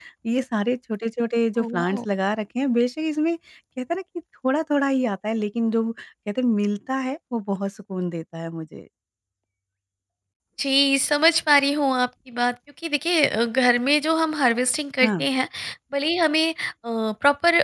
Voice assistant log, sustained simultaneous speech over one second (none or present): none